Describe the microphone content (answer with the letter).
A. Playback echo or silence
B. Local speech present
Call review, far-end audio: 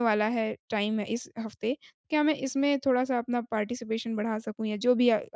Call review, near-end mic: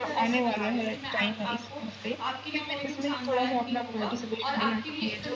B